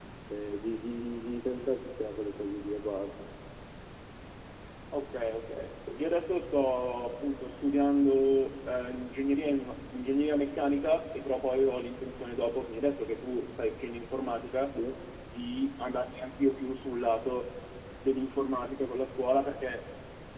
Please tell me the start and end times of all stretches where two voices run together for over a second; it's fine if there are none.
none

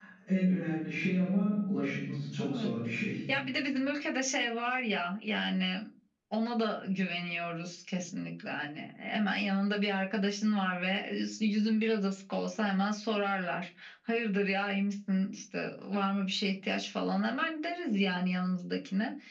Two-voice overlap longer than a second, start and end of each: none

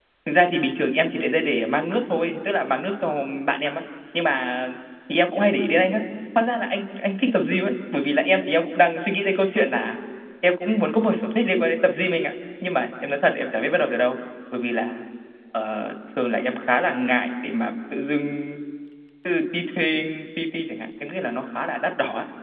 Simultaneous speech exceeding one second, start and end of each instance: none

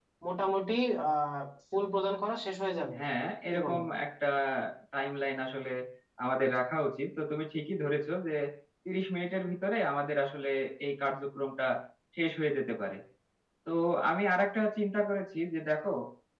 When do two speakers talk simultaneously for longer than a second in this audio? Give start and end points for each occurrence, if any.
none

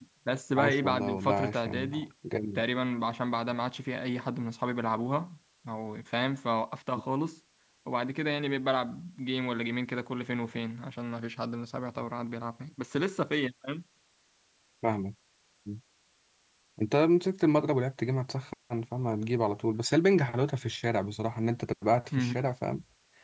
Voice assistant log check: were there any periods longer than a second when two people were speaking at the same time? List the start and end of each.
0.6-2.1

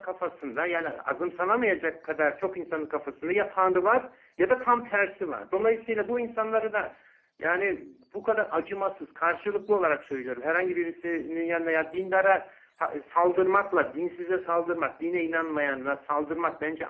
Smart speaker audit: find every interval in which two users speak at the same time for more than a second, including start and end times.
none

